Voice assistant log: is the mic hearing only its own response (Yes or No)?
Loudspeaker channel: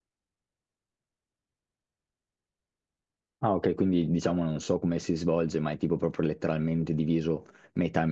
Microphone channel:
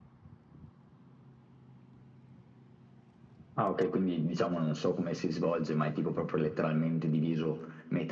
Yes